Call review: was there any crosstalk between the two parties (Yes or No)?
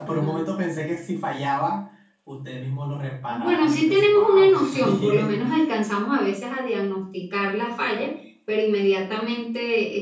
Yes